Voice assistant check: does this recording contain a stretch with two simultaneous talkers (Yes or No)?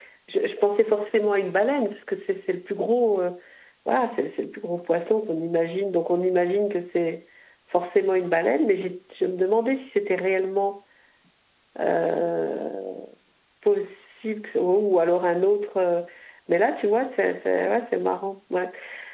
No